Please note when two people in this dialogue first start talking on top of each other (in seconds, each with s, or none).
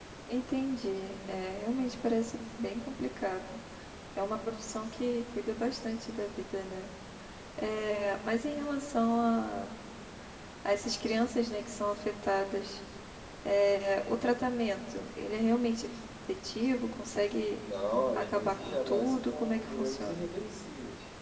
18.1 s